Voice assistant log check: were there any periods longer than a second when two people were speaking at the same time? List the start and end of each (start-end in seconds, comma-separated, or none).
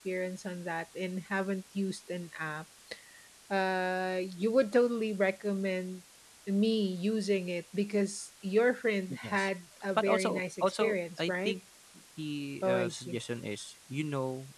10.0-11.6